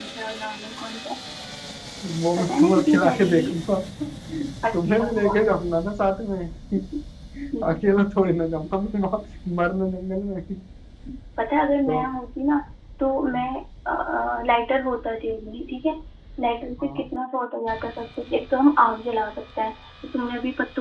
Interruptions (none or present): present